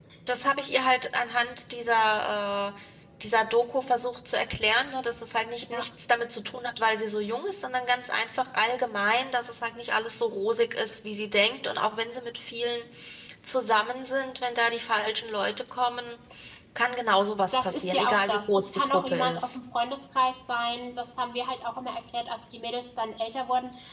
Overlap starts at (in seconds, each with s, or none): 17.5 s